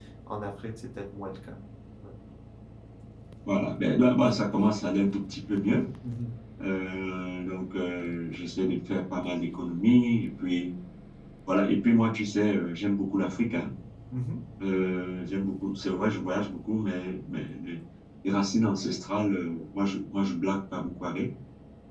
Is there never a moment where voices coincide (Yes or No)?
Yes